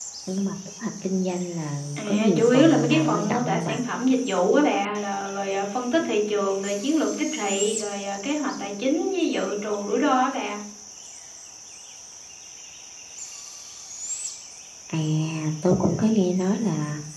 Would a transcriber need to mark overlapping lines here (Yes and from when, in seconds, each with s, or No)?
Yes, from 2.0 s